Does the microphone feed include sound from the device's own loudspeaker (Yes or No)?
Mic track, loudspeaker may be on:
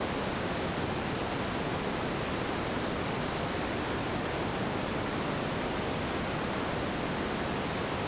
No